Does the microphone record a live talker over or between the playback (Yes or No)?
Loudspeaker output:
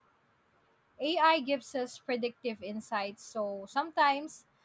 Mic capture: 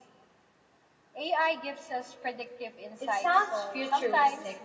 Yes